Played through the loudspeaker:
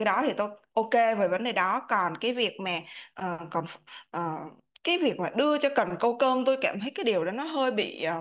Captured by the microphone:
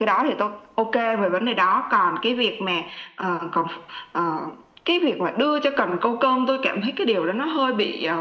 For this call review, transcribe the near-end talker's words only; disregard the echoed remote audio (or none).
none